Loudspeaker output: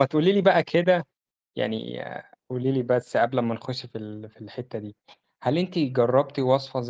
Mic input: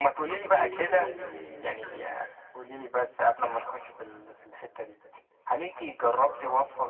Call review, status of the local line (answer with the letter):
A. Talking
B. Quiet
A